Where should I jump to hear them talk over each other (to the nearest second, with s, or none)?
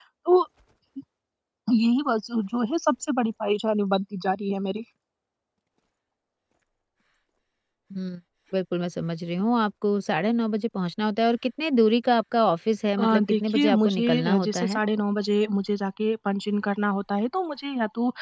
13 s